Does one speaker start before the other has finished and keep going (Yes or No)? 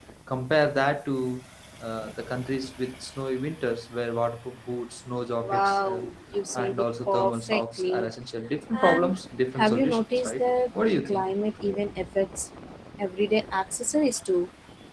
Yes